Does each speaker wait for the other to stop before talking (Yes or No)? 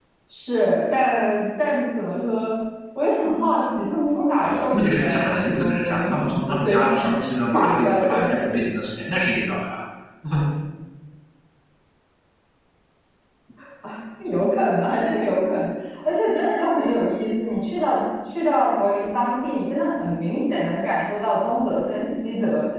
No